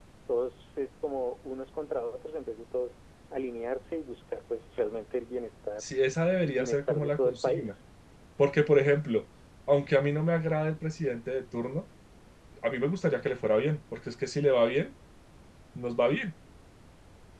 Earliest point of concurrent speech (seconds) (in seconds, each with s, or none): 6.4 s